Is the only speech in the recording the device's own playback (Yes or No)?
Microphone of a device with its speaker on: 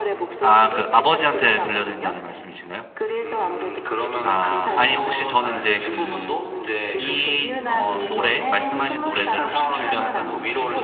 No